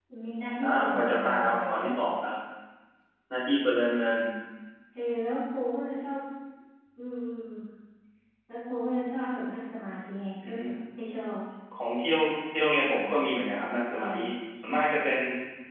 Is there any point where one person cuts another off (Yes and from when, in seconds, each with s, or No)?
Yes, from 0.6 s